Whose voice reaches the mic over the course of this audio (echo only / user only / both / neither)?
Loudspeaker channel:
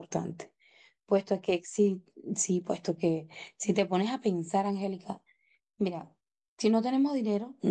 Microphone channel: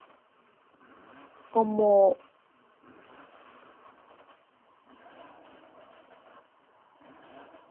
user only